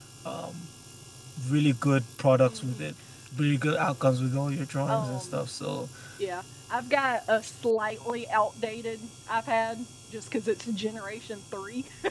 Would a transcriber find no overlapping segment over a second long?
Yes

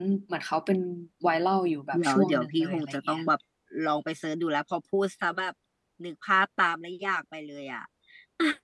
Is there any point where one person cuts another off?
Yes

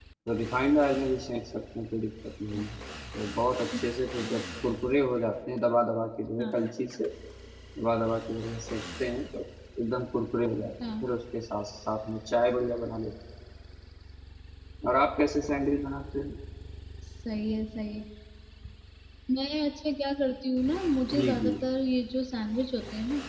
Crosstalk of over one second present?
No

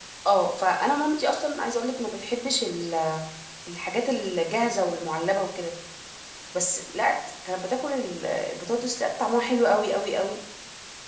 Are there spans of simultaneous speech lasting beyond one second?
No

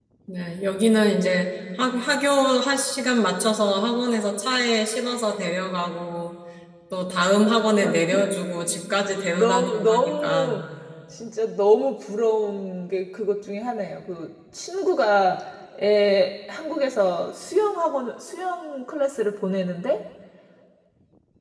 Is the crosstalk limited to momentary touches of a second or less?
No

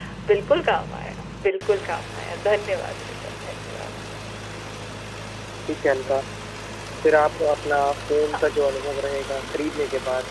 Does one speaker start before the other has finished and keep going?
No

